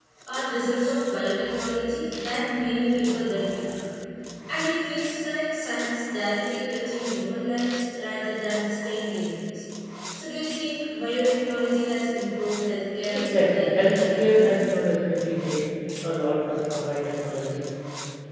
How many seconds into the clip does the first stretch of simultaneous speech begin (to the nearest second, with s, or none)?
13 s